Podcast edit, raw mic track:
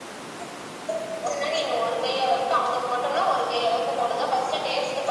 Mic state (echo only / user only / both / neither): echo only